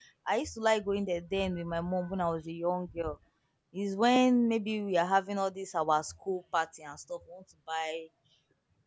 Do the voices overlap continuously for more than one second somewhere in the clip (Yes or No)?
No